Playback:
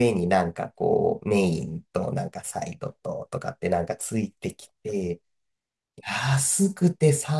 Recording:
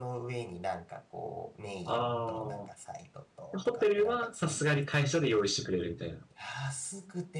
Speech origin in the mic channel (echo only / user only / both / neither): both